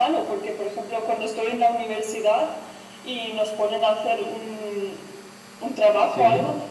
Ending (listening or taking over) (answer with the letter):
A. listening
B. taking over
A